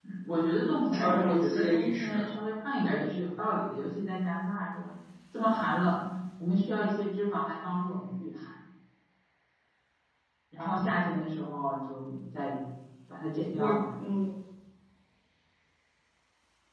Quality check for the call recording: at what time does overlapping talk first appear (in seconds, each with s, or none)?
0.9 s